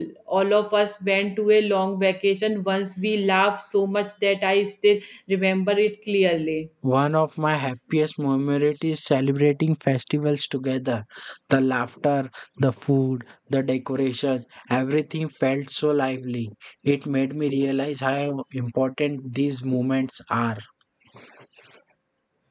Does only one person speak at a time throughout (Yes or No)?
Yes